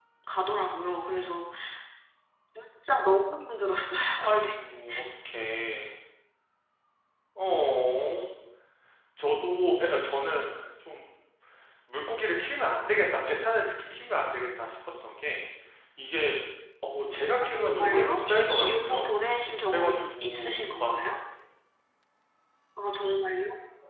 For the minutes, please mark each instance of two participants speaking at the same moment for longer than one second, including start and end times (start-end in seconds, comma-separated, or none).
17.5-19.1, 19.7-21.0